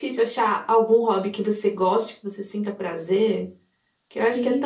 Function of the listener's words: listening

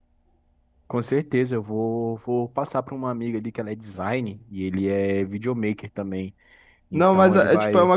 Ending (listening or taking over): taking over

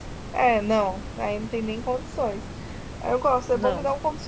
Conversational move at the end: listening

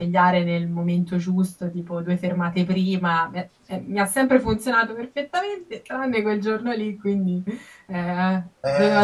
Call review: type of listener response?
taking over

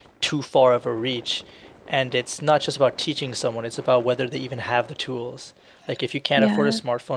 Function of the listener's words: listening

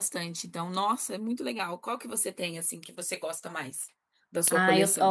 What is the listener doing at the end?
taking over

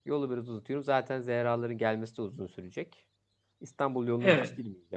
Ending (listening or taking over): listening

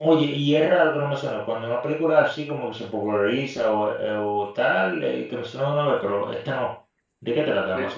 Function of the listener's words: taking over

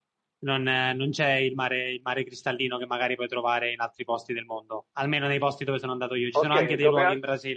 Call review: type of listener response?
taking over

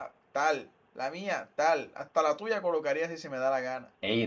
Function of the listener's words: listening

